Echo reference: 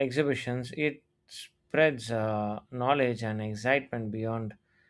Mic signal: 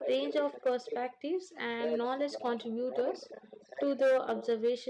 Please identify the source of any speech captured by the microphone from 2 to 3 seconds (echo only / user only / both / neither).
both